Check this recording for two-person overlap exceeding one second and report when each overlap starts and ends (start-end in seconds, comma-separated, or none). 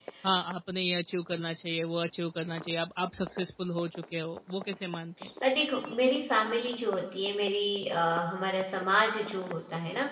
none